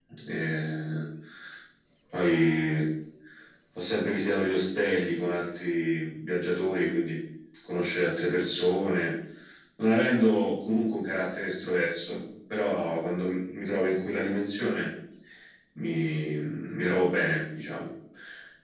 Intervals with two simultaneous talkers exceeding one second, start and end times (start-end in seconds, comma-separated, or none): none